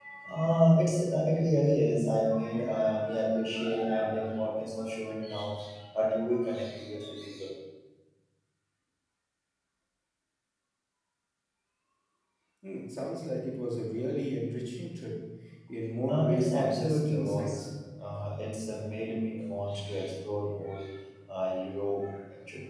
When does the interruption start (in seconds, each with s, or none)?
16.1 s